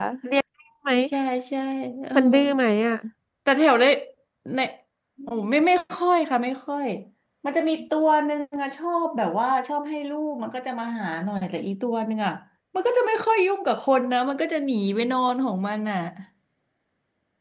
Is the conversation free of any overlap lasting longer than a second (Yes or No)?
Yes